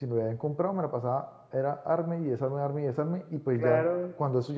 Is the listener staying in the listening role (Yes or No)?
Yes